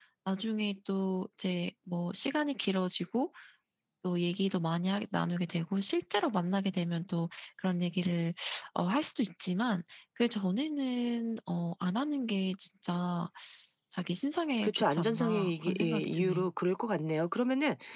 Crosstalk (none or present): present